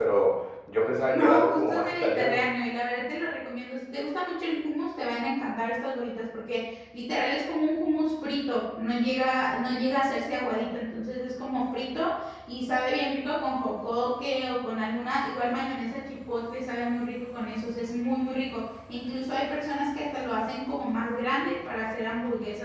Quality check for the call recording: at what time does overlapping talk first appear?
1.1 s

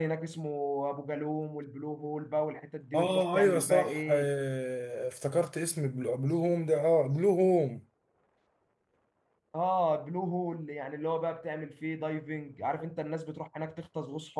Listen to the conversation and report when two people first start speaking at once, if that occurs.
2.9 s

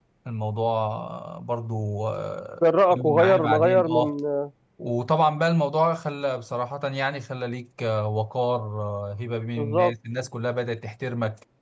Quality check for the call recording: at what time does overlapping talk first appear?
2.6 s

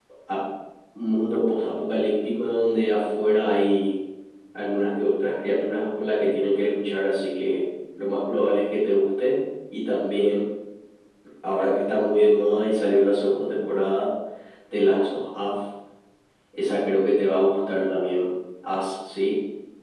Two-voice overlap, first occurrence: none

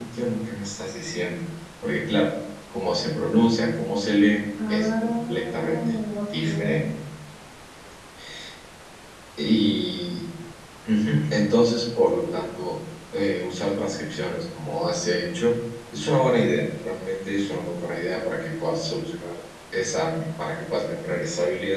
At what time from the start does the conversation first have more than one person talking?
4.6 s

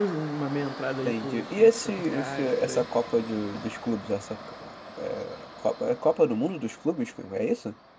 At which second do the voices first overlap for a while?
1.0 s

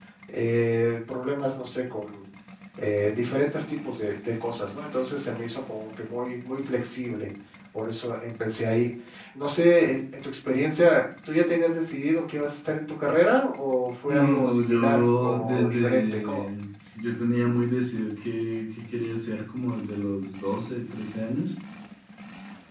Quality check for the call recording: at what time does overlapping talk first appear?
14.1 s

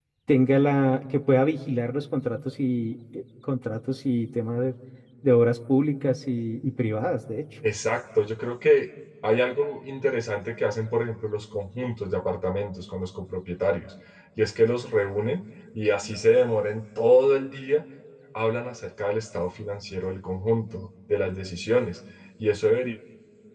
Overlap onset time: none

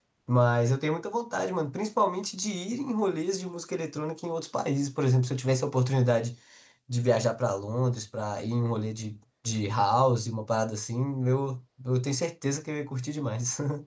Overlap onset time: none

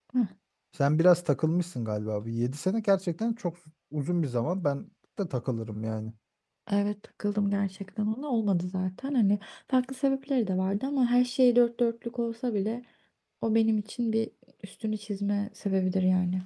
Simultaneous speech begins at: none

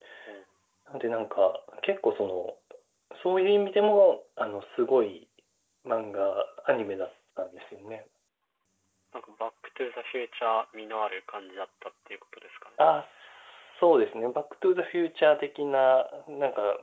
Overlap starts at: none

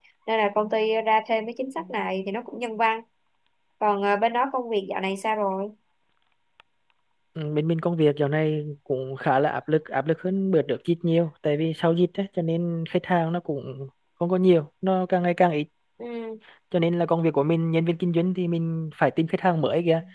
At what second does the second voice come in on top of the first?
none

